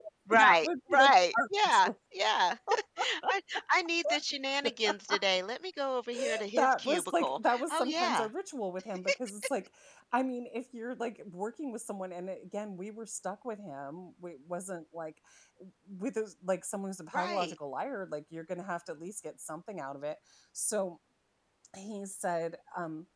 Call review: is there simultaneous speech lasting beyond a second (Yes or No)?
Yes